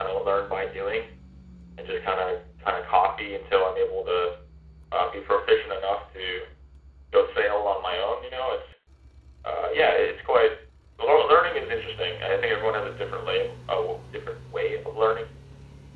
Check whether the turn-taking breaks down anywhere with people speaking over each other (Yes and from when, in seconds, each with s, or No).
No